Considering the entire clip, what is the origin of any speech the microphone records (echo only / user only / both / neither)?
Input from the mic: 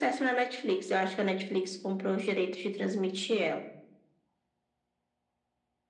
echo only